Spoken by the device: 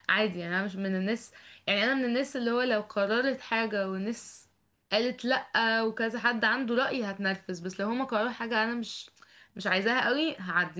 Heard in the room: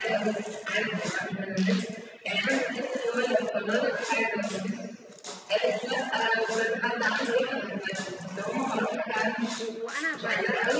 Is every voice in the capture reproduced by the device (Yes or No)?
No